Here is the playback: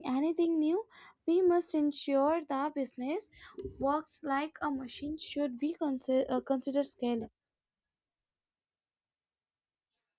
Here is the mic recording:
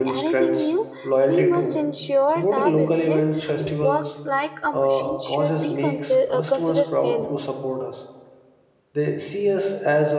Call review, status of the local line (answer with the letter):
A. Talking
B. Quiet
A